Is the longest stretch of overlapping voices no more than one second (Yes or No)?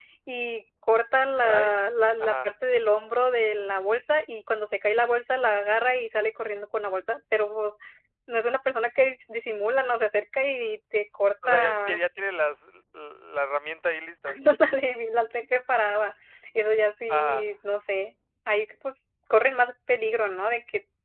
Yes